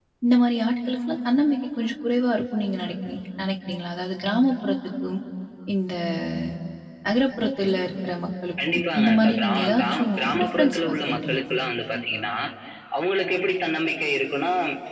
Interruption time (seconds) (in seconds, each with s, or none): 8.6 s